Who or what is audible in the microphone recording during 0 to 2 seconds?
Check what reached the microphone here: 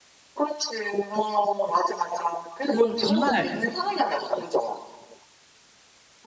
echo only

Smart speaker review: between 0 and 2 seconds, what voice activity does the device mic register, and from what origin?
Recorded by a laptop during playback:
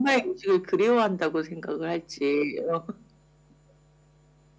echo only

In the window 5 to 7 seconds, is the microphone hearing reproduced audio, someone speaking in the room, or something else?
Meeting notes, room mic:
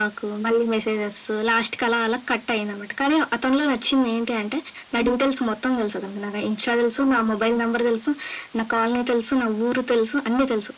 echo only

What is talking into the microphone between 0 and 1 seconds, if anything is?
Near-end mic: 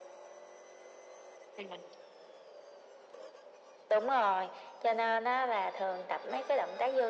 neither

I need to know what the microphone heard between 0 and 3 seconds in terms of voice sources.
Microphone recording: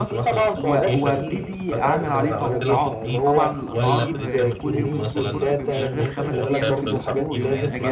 both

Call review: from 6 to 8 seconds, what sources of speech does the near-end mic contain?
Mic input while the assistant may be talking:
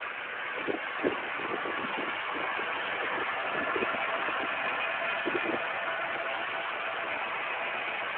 neither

